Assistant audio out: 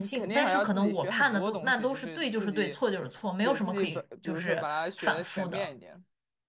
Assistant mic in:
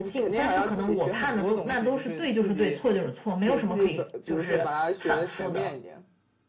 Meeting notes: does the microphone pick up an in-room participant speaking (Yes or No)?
No